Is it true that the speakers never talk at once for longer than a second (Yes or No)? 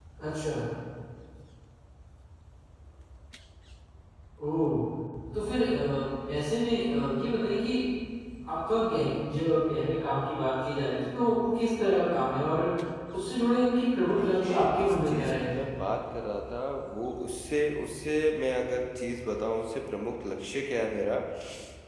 No